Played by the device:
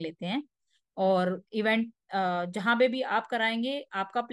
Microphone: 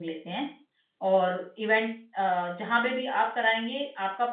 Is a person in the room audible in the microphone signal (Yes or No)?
No